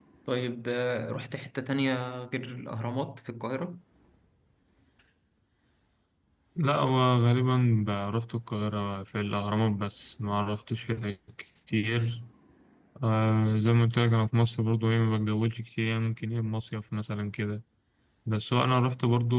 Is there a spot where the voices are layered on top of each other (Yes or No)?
No